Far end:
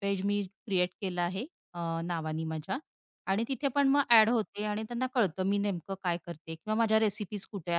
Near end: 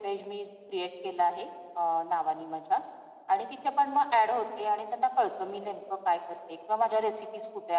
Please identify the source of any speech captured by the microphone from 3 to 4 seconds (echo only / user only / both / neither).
echo only